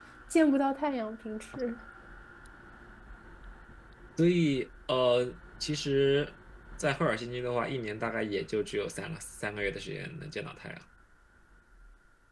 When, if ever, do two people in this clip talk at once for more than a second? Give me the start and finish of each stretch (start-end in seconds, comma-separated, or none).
none